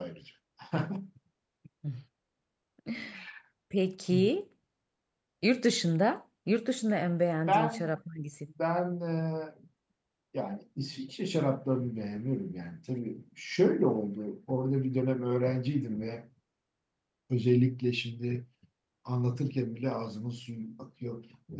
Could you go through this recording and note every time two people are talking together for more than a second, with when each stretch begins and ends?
none

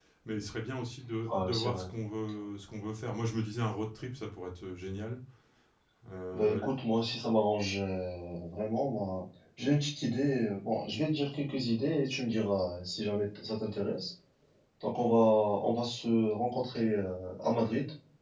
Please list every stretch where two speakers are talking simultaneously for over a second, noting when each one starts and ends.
none

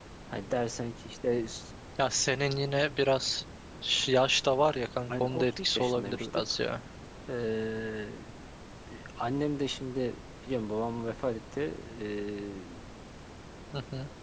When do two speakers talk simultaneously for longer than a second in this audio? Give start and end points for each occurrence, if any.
5.1-6.4

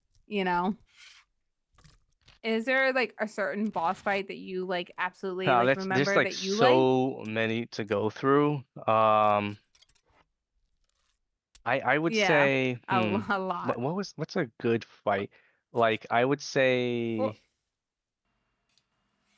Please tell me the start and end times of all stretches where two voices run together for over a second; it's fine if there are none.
5.5-6.9

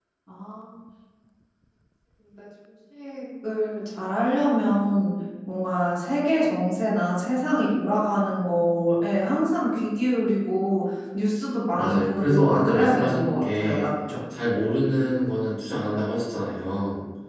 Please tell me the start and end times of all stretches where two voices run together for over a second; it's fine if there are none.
11.8-13.9

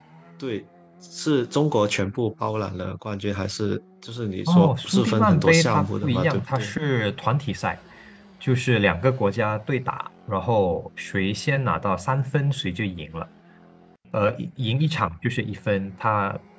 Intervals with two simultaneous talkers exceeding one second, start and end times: 4.5-6.7

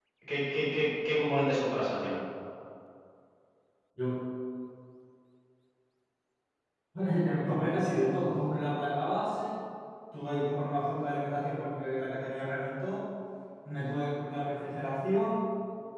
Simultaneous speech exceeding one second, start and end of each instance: none

